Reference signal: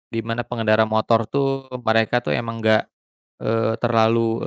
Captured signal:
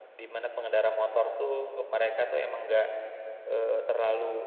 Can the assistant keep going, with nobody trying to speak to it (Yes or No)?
Yes